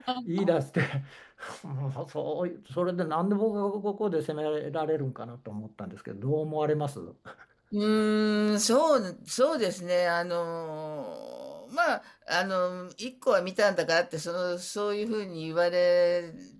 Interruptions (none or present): none